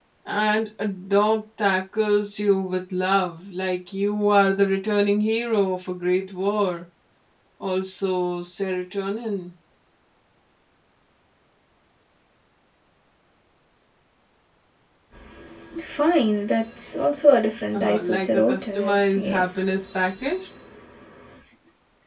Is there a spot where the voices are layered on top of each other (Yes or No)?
Yes